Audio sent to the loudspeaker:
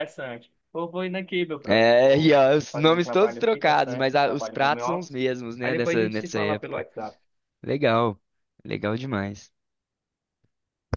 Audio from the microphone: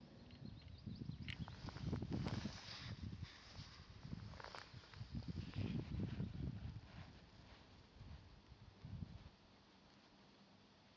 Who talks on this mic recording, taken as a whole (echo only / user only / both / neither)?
neither